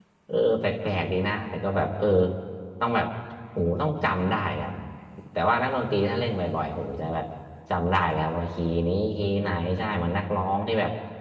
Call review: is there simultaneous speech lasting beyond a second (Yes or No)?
No